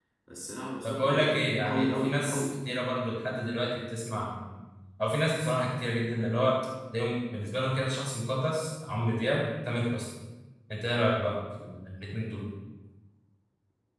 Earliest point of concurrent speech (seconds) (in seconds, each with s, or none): 0.8 s